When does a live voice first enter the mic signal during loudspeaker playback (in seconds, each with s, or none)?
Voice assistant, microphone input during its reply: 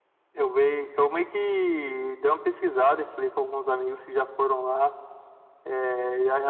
none